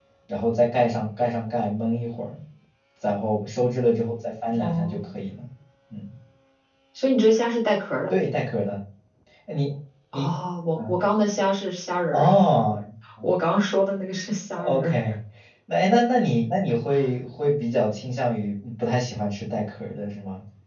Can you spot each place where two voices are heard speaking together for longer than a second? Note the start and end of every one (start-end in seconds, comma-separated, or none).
none